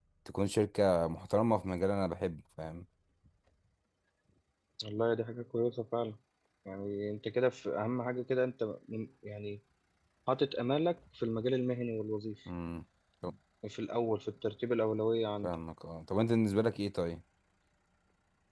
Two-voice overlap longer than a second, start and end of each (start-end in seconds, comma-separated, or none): none